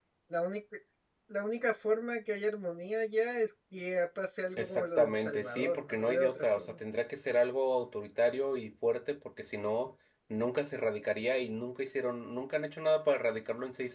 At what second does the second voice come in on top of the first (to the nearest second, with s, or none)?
5 s